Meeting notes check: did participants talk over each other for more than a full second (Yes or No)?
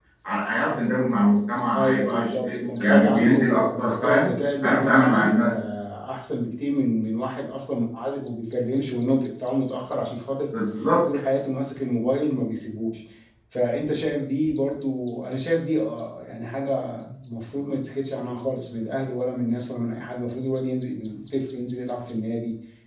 Yes